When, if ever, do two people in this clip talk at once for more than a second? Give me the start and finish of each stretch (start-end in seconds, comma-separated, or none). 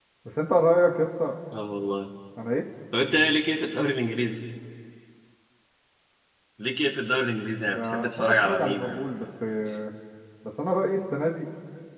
7.8-9.0